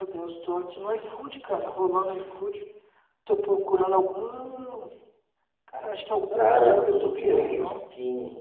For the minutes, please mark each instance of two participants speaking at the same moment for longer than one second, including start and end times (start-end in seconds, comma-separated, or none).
6.4-7.8